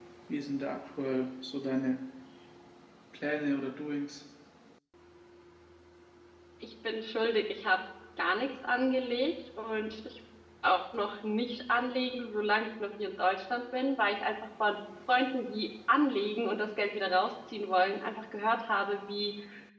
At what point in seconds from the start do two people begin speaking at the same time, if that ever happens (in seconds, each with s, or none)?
none